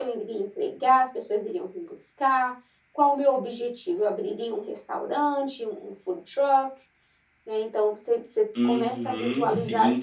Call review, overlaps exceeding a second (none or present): present